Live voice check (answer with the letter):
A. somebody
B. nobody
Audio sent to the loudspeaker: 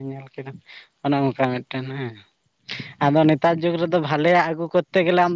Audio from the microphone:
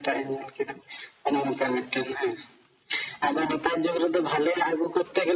B